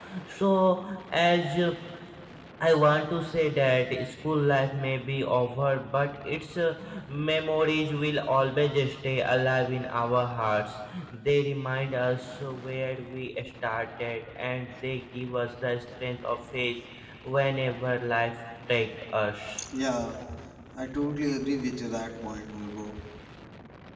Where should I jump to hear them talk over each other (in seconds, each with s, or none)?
none